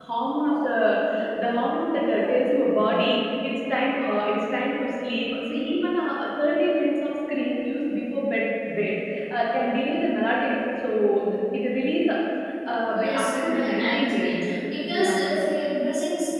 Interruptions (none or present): present